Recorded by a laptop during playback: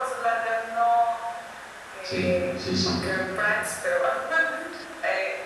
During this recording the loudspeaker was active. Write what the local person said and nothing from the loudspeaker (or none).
sí, sí, sí.